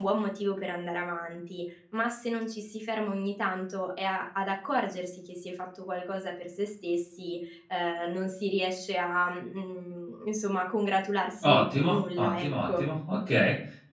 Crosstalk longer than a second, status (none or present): present